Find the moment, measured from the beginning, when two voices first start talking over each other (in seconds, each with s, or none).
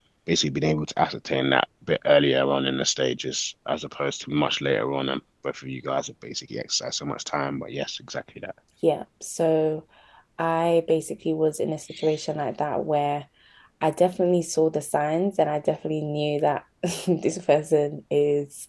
none